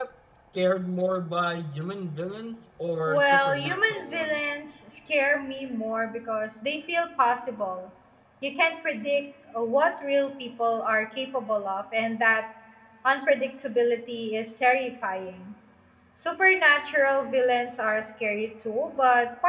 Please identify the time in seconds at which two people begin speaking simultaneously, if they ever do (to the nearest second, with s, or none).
3 s